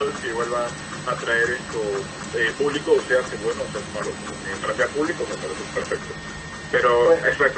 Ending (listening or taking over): listening